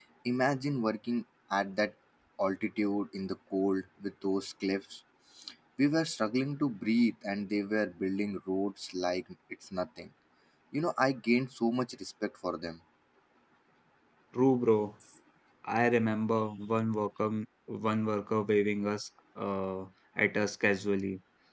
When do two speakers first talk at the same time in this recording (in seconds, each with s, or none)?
none